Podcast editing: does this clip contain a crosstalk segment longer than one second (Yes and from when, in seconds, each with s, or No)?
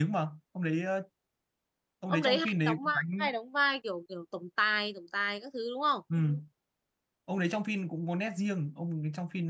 Yes, from 2.1 s